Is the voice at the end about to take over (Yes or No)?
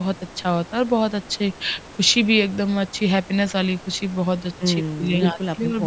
Yes